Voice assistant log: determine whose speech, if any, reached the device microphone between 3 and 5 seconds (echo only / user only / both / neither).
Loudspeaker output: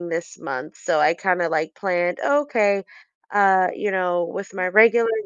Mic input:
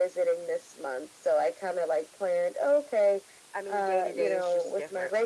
both